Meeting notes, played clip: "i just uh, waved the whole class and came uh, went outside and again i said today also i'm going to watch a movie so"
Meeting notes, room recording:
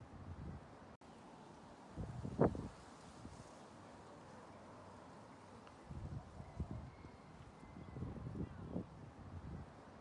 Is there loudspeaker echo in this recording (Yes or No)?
No